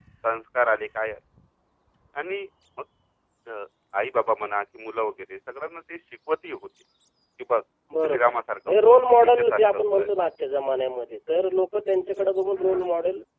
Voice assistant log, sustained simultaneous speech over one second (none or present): present